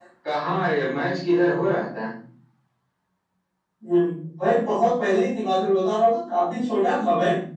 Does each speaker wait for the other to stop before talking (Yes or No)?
Yes